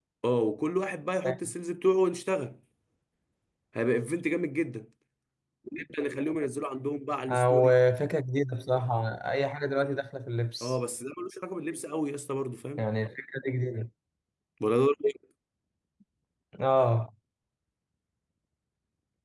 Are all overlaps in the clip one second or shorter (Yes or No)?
Yes